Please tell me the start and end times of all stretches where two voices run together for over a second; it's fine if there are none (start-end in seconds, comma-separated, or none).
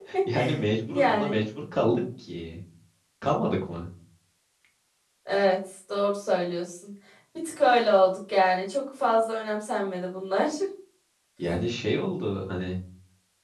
none